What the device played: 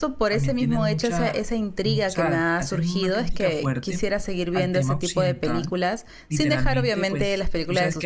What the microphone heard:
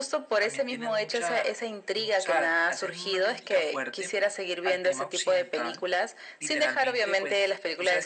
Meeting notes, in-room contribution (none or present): none